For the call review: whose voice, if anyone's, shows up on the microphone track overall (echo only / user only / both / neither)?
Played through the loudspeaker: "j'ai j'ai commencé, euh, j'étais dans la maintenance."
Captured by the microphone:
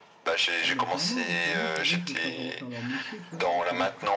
both